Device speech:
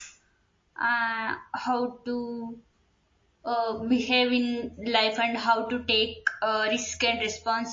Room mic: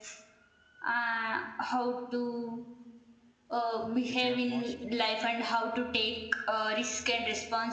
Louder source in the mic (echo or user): echo